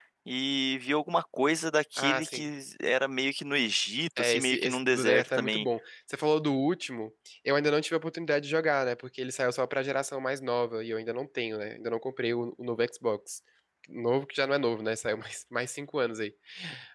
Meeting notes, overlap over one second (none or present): present